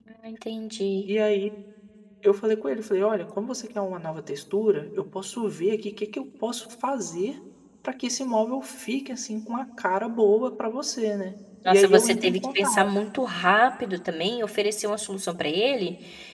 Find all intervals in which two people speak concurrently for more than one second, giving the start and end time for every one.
11.7-12.9

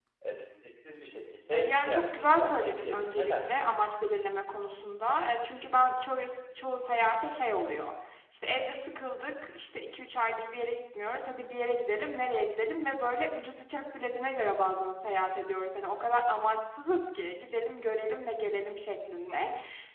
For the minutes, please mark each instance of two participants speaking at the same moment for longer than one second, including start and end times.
1.5-3.7

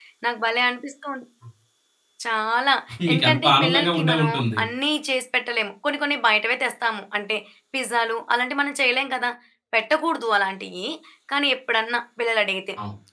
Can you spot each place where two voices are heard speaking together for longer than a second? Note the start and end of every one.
3.1-4.6

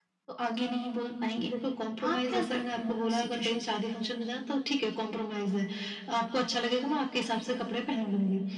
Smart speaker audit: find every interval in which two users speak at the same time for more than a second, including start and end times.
2.1-3.6

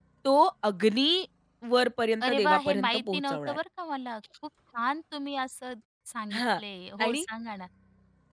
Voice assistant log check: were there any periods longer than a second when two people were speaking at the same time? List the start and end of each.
2.2-3.6

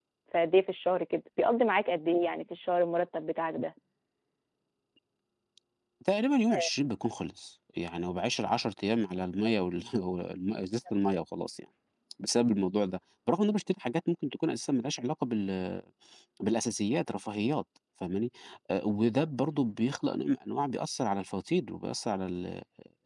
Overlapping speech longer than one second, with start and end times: none

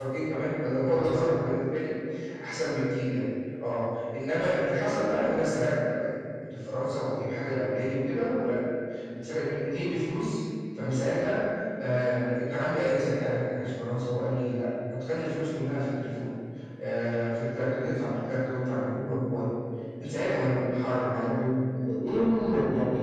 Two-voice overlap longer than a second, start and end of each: none

